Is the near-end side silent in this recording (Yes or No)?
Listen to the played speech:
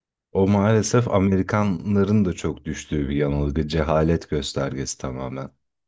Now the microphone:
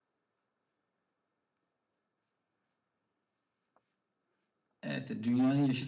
No